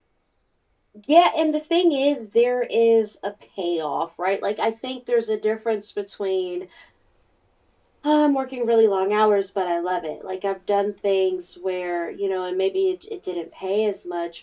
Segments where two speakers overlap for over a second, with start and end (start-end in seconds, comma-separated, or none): none